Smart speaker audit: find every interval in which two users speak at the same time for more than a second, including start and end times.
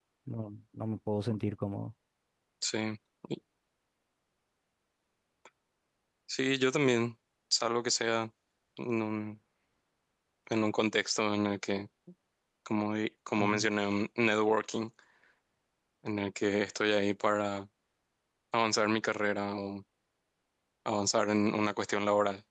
none

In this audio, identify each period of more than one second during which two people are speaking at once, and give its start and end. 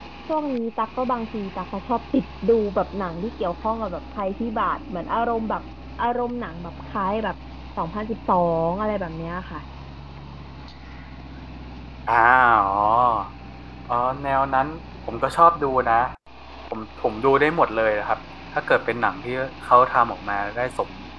none

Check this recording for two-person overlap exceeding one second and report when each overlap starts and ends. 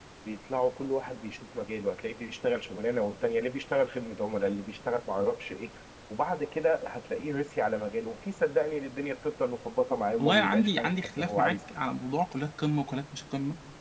10.2-11.8

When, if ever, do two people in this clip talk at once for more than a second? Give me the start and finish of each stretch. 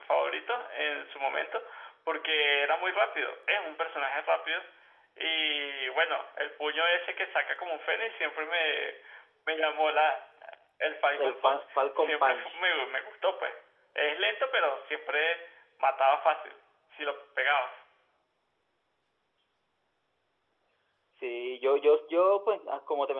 11.2-12.6

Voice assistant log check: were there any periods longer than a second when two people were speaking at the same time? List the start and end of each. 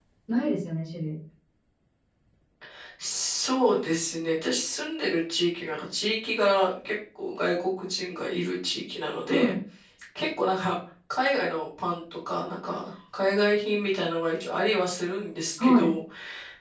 none

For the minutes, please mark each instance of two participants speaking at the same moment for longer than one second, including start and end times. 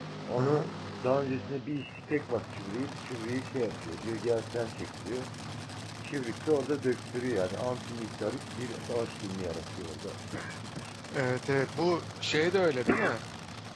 none

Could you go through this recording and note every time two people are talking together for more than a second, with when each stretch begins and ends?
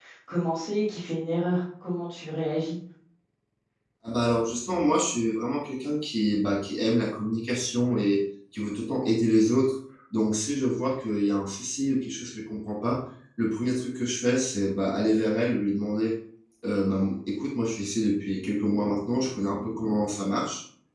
none

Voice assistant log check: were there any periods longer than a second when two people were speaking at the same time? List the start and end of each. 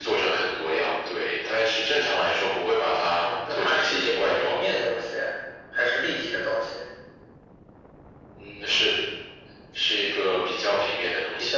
3.1-4.6

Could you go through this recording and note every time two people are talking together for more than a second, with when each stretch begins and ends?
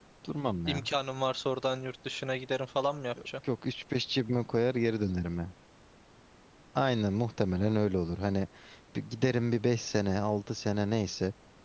none

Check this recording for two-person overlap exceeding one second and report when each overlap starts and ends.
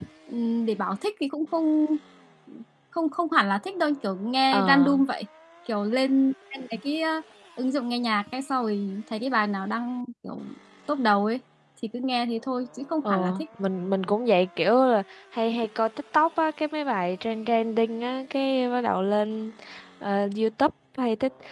none

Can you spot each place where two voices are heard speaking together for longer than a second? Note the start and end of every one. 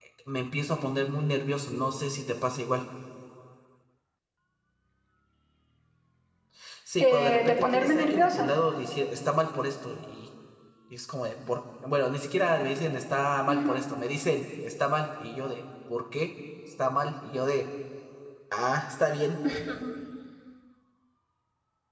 7.0-8.5

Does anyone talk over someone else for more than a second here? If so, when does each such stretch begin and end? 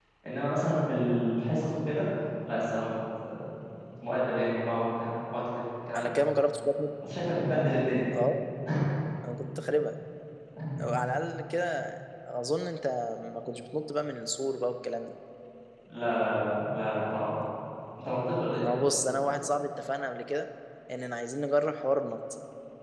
none

